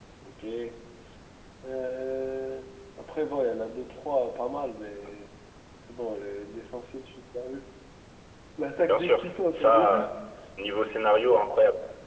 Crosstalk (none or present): present